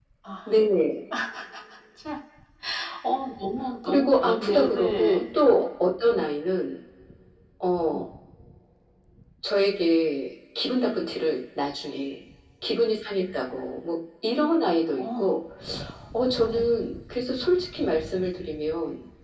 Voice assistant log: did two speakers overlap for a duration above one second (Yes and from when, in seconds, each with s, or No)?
Yes, from 3.8 s